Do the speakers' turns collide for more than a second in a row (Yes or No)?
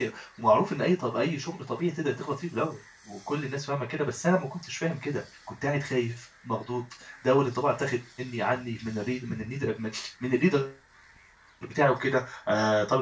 No